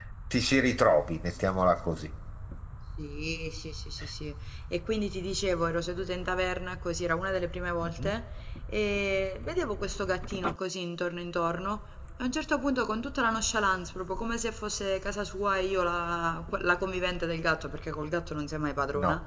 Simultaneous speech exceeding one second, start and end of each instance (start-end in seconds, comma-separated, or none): none